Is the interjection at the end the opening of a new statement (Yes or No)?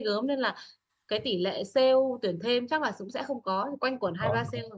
No